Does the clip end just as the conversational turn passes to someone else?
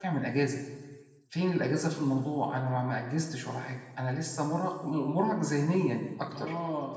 Yes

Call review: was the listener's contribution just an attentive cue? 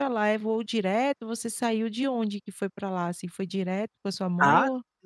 No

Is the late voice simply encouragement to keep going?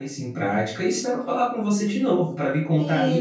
No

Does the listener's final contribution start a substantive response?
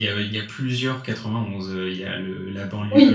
No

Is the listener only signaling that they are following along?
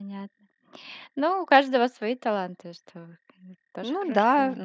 No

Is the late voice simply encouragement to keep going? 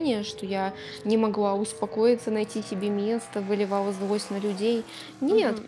No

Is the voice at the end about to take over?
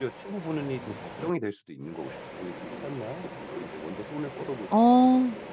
Yes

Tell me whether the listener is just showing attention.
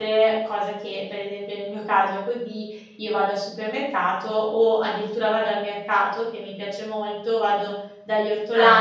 Yes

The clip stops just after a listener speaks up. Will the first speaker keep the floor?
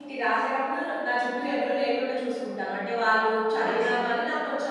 Yes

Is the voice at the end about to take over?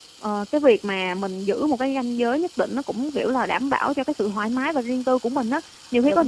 No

